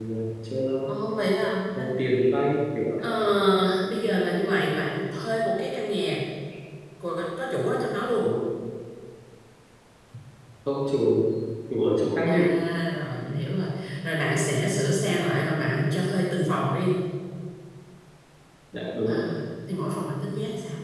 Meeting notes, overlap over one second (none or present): none